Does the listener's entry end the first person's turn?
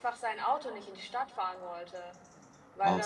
Yes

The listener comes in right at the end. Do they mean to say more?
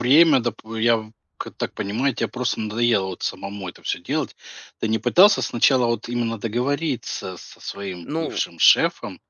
No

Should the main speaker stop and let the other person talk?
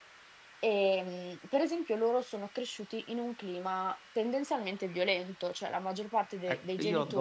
Yes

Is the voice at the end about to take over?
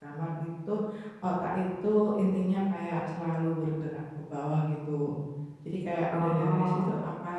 No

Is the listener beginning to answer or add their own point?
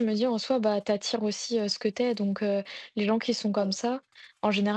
No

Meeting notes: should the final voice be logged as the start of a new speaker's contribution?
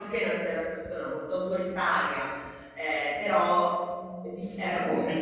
Yes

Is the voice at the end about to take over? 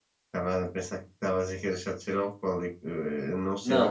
Yes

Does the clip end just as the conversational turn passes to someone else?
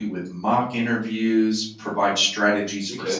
No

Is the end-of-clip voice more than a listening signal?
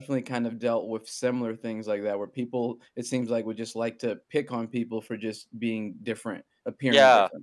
Yes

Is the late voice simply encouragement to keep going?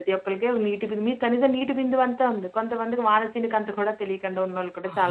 No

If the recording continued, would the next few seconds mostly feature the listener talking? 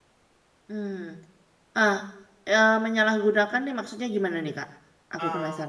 Yes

